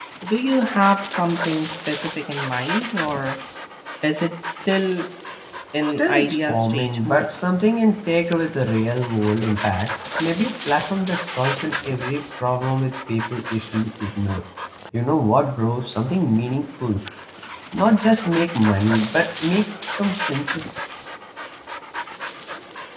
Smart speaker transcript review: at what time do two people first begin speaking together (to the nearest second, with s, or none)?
6 s